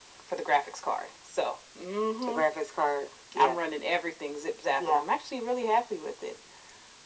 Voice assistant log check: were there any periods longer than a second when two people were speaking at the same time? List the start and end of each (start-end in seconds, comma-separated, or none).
none